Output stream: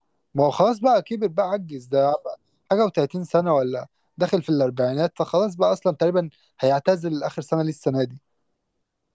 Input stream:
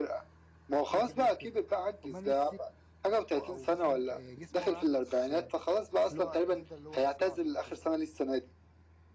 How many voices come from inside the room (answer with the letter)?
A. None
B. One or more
B